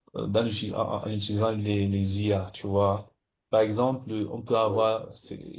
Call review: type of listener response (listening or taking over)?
listening